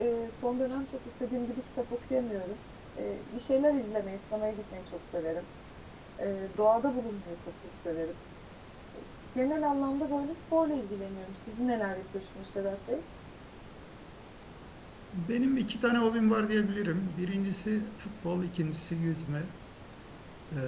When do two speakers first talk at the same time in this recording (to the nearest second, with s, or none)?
none